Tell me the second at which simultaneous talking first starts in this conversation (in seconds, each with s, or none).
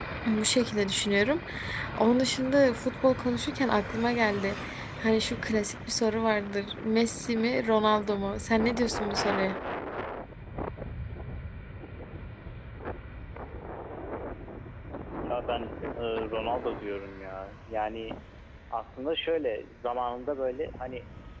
none